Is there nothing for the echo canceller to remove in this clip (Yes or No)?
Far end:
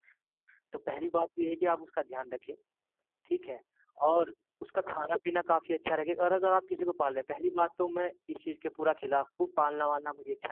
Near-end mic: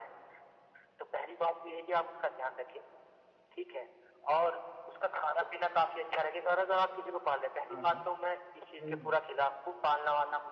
No